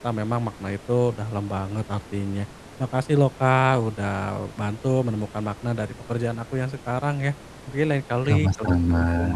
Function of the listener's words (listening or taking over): listening